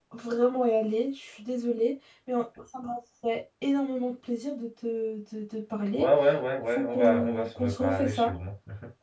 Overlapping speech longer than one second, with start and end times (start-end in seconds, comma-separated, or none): 6.7-8.3